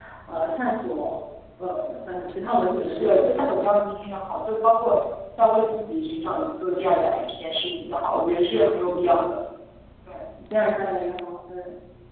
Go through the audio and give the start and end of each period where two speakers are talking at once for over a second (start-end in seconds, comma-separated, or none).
2.5-3.7